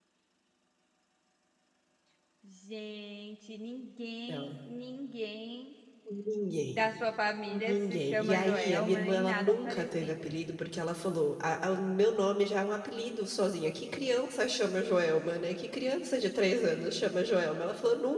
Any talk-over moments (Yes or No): Yes